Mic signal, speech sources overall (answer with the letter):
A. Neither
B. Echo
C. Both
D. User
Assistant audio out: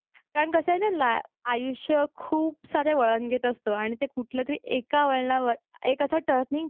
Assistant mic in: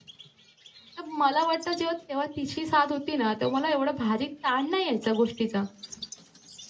D